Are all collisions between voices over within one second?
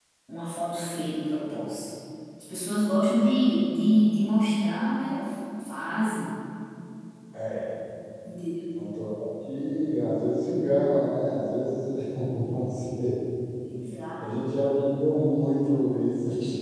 Yes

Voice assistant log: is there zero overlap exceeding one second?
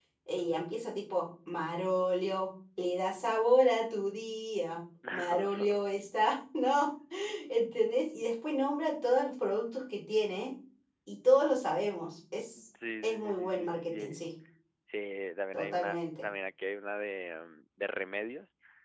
No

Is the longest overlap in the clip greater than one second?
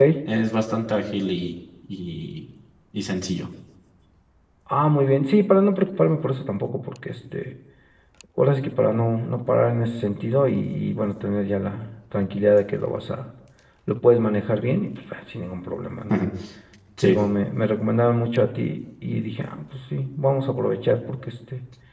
No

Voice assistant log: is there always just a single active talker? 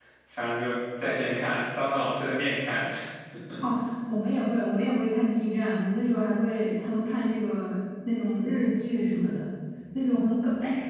Yes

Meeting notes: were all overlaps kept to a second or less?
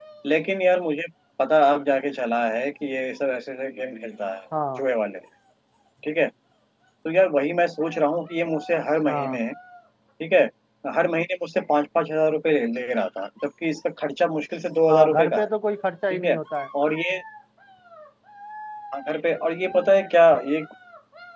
Yes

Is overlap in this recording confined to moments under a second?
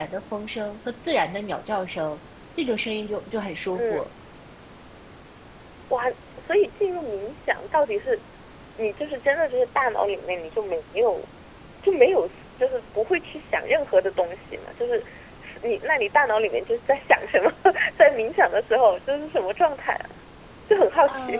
Yes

